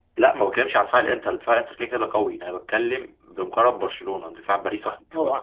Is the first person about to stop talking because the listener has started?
Yes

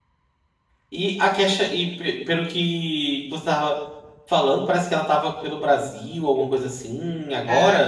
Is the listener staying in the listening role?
No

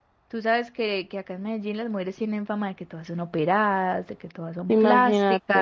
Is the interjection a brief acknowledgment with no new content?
Yes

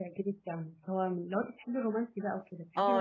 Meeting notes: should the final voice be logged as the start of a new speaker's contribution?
Yes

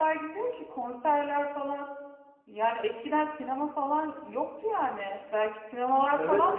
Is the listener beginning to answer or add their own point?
Yes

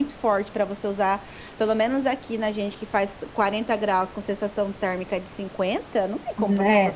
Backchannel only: No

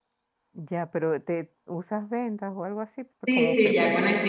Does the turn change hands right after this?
Yes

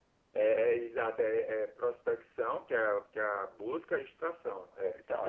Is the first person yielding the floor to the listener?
Yes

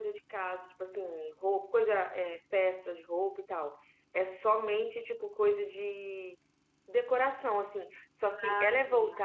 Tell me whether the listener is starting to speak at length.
No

